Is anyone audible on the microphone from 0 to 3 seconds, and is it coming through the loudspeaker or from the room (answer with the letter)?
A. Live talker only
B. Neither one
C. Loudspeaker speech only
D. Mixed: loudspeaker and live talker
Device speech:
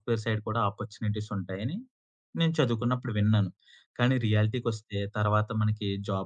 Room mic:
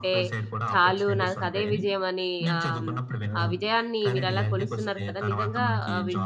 D